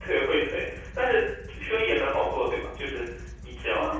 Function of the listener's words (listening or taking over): taking over